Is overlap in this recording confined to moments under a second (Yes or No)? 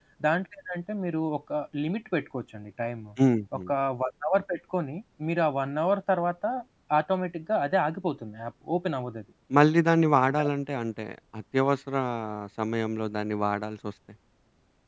Yes